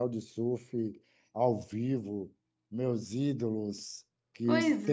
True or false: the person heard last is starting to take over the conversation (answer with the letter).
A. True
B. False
B